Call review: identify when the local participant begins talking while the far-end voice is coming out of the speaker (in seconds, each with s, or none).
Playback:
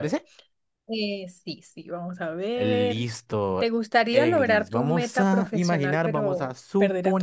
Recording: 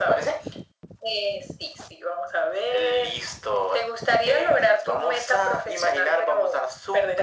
none